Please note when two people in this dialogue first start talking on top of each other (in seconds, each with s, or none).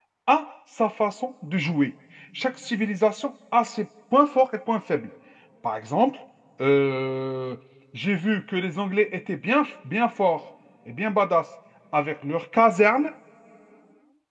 none